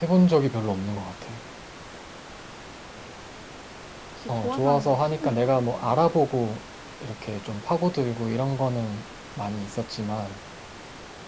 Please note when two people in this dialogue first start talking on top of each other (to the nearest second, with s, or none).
4 s